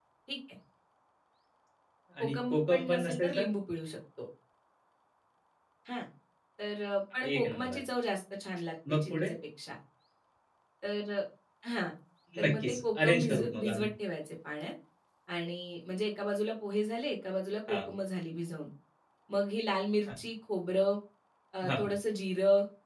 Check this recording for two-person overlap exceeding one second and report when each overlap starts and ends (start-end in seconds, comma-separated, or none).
2.2-3.4, 12.4-13.9